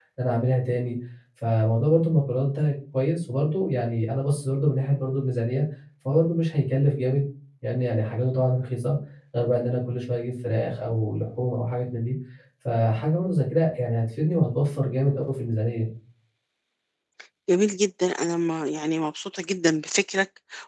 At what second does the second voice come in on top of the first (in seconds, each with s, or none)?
none